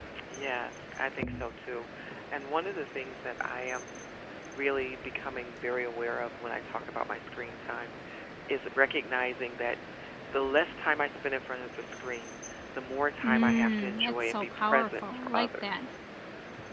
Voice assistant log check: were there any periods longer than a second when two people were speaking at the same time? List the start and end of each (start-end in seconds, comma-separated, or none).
13.2-15.8